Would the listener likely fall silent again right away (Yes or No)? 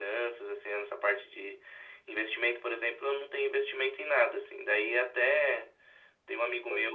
Yes